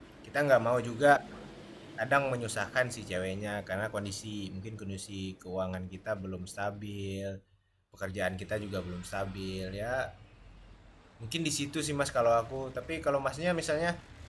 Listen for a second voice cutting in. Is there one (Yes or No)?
No